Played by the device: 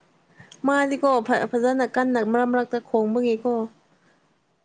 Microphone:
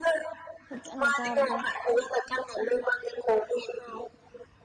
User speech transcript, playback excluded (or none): ꯐꯠꯖꯅ ꯆꯥꯕꯗꯣ